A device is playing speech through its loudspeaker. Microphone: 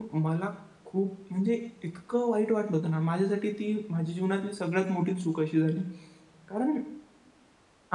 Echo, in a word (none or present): none